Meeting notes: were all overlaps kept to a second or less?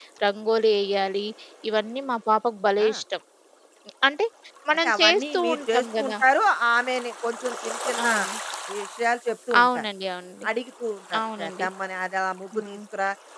No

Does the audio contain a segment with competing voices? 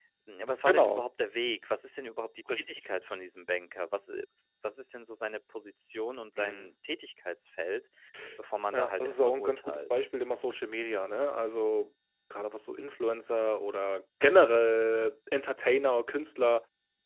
Yes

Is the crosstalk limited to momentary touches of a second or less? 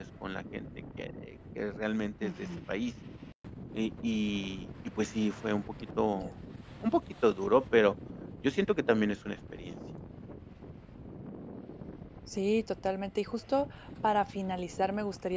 Yes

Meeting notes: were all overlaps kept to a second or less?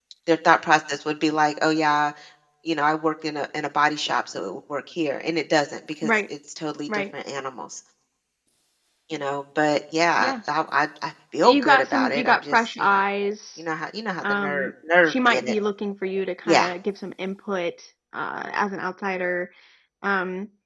No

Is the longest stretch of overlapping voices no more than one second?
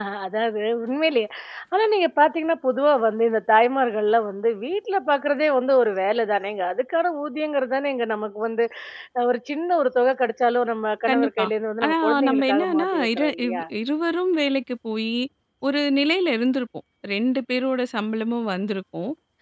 No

